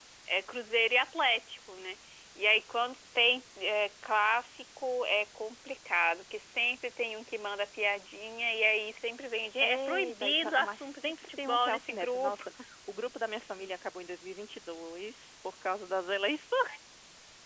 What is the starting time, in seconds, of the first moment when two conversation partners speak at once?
9.6 s

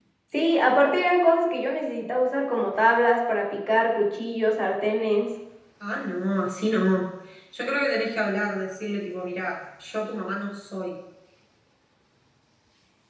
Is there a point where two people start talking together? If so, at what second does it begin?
none

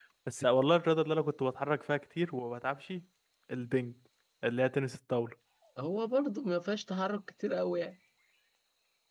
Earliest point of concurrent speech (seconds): none

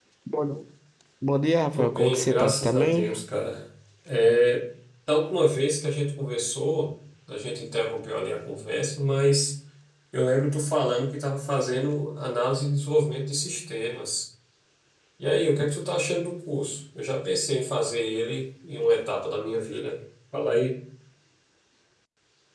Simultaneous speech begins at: 1.7 s

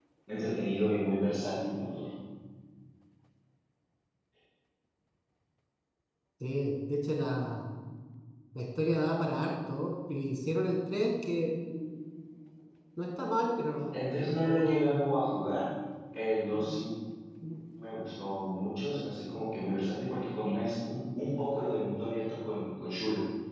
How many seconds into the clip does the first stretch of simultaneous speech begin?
13.9 s

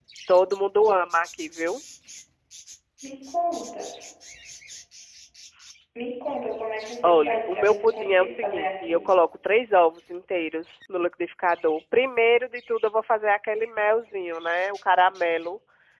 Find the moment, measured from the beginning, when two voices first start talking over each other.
7.0 s

